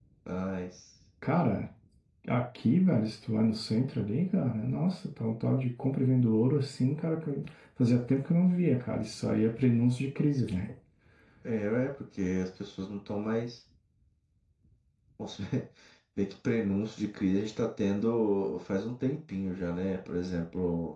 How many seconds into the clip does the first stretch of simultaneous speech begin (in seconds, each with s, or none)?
none